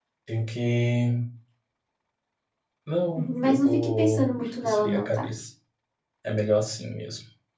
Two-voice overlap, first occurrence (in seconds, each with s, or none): 3.1 s